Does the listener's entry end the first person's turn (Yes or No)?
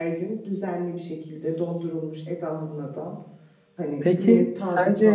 Yes